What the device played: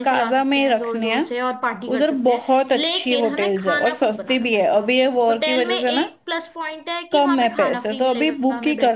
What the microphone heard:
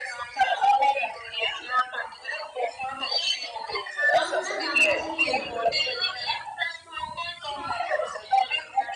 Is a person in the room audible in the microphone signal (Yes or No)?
Yes